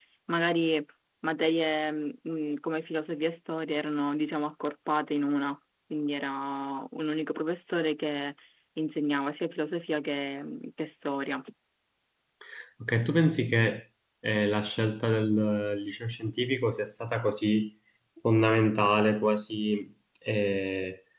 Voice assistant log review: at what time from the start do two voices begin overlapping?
none

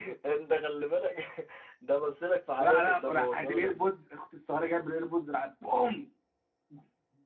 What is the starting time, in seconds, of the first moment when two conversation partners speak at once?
2.6 s

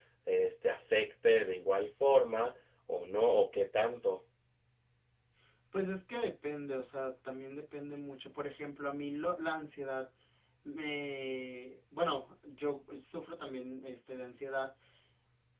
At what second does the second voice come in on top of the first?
none

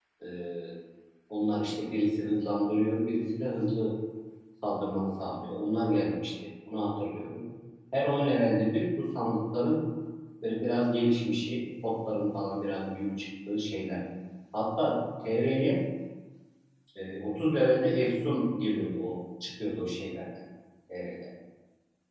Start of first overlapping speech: none

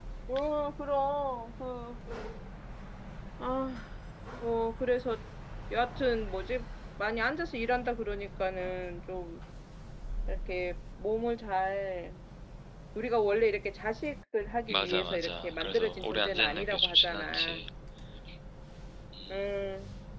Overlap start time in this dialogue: 14.7 s

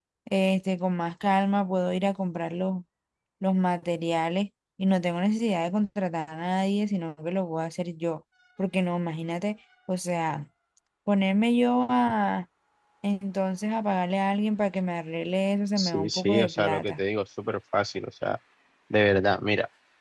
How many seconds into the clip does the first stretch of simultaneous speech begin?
15.8 s

